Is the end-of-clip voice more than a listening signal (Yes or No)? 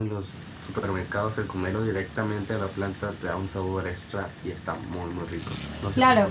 Yes